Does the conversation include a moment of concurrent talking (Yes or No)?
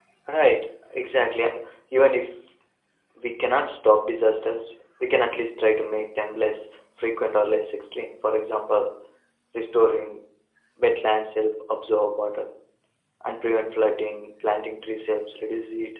No